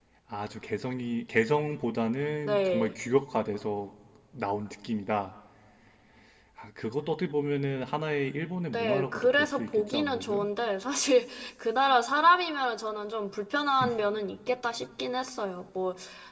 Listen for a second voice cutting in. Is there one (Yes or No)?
Yes